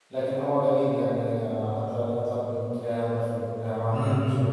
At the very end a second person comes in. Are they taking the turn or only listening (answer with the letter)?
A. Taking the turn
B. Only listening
A